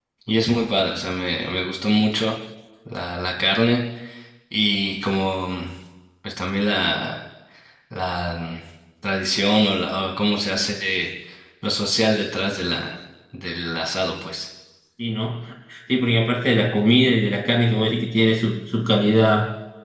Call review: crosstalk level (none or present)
none